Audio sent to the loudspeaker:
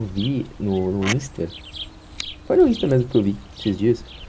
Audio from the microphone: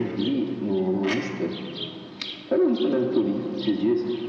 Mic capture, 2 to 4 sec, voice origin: echo only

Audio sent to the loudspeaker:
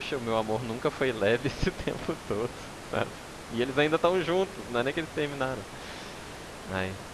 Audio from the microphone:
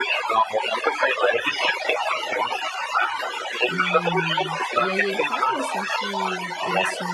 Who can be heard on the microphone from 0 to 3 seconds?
echo only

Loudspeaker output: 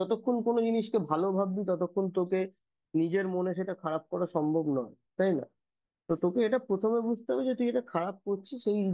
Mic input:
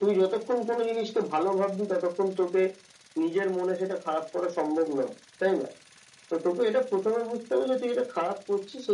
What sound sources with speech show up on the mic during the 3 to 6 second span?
echo only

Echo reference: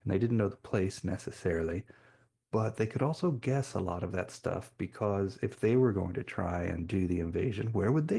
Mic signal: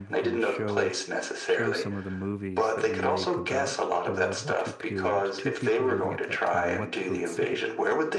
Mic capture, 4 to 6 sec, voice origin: both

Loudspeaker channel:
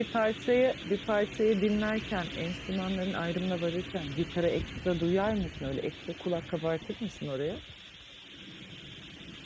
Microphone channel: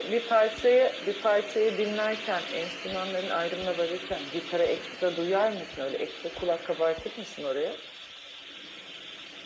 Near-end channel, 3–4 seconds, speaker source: echo only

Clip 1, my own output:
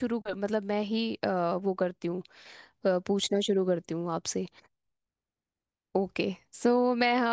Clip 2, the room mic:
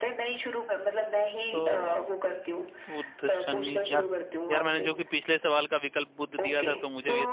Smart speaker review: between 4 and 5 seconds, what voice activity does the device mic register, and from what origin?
both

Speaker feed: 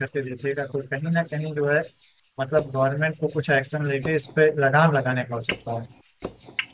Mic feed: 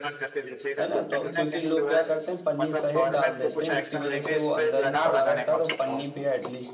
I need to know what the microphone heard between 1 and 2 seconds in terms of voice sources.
both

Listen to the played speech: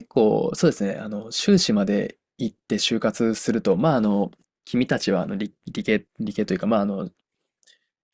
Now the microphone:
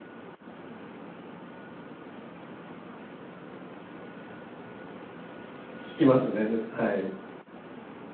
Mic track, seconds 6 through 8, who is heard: user only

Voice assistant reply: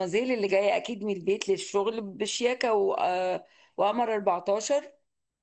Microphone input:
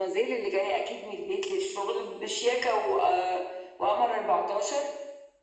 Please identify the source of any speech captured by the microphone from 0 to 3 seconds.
echo only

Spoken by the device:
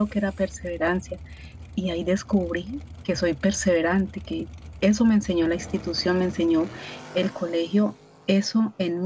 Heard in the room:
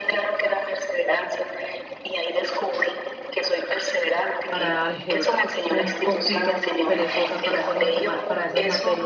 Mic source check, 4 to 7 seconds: both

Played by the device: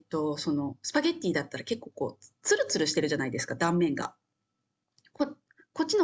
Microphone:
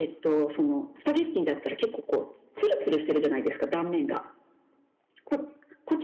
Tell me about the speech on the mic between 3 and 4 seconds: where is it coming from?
echo only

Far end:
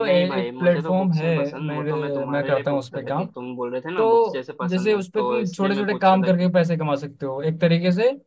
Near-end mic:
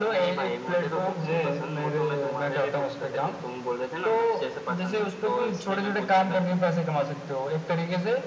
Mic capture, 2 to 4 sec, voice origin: echo only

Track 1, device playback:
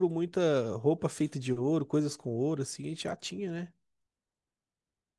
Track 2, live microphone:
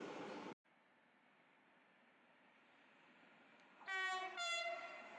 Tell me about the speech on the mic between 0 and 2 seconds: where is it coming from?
neither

